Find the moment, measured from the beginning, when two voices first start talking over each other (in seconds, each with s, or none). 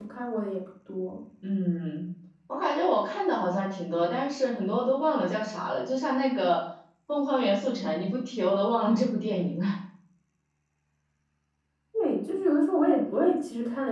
none